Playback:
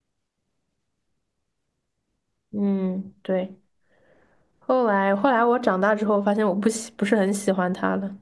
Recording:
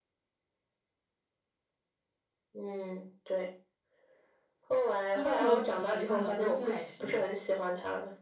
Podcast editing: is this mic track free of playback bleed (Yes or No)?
No